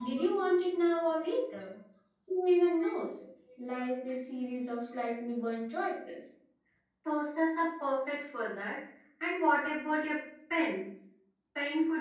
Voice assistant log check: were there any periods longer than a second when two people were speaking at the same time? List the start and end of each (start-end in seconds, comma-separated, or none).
none